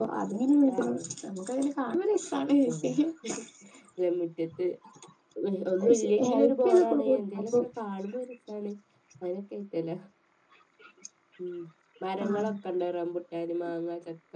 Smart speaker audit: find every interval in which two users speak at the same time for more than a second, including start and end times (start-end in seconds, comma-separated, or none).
5.8-7.5